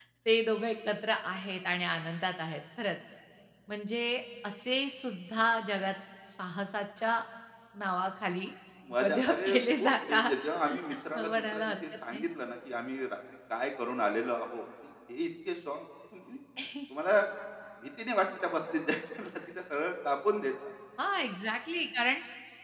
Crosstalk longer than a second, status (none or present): present